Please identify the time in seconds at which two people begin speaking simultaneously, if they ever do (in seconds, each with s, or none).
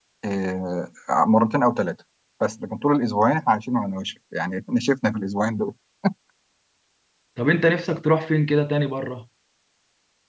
none